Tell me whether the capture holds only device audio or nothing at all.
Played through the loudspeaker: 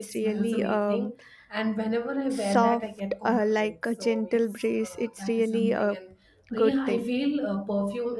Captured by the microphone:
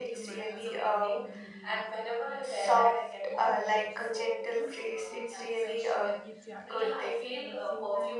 No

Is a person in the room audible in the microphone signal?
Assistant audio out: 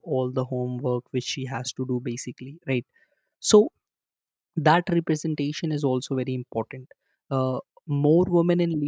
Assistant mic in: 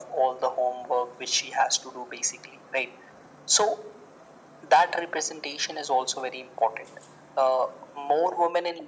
No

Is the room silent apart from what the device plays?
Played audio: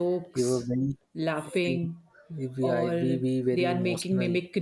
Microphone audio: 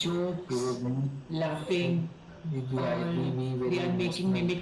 Yes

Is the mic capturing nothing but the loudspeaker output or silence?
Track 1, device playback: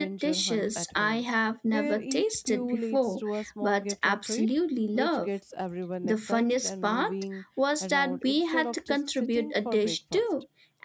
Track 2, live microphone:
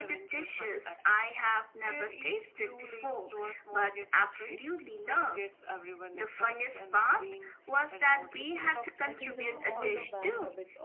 No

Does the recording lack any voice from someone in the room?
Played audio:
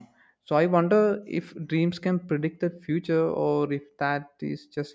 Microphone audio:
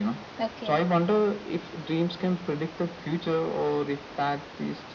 No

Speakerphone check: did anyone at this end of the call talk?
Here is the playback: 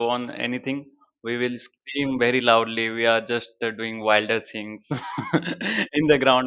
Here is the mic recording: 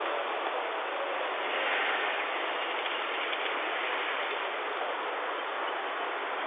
No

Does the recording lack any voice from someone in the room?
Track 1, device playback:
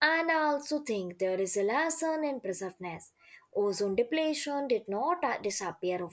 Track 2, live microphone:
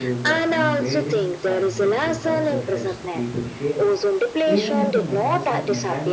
No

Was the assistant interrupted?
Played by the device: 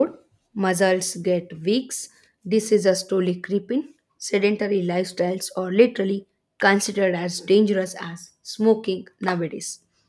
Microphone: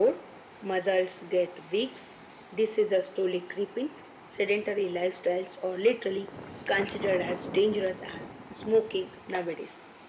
No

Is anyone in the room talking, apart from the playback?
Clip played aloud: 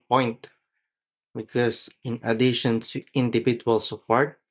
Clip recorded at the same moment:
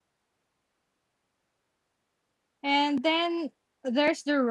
Yes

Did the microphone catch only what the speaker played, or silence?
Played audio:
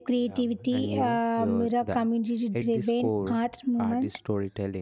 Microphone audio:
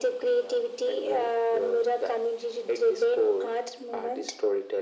Yes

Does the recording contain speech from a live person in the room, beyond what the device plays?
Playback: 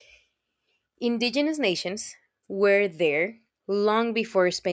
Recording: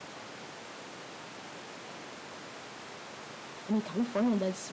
Yes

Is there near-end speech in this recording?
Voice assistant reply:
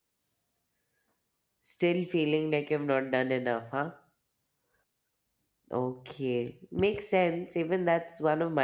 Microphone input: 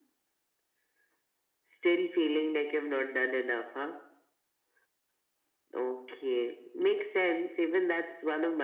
No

